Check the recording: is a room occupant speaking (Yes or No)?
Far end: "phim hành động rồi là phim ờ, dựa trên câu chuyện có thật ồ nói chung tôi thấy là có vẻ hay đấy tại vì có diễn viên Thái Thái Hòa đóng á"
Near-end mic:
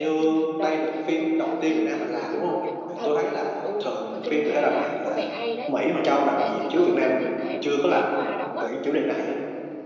Yes